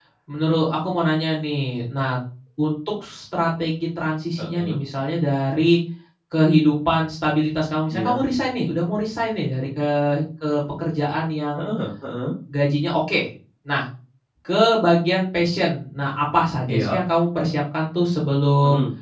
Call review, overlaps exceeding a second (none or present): none